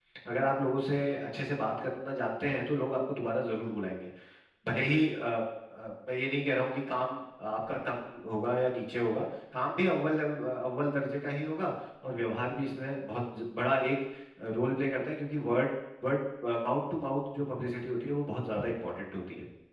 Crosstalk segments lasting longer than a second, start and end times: none

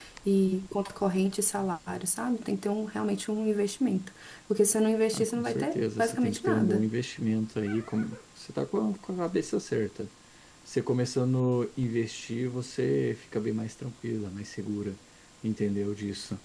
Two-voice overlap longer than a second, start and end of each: 5.1-6.9

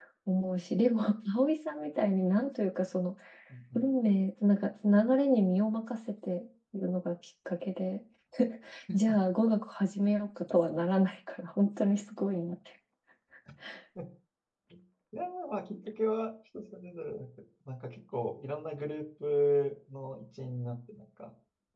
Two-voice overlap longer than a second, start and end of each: none

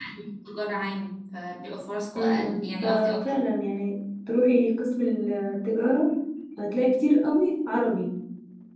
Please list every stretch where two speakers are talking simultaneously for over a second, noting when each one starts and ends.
2.2-3.4

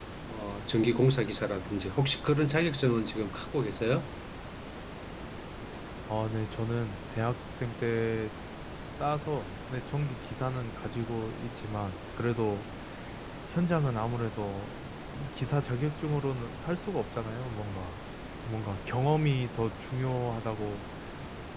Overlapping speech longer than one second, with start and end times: none

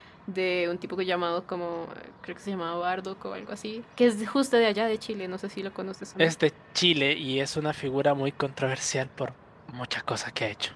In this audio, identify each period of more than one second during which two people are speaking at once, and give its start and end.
none

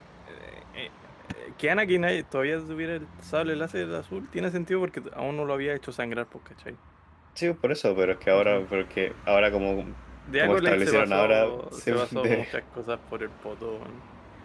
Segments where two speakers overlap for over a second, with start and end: 10.4-12.5

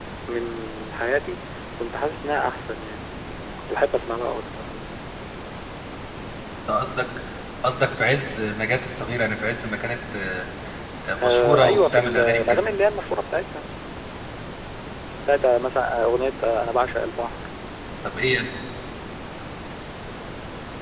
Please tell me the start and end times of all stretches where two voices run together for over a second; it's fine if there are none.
11.2-12.6

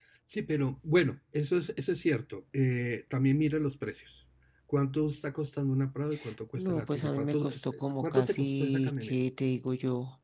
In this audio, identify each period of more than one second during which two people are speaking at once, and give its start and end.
6.6-9.1

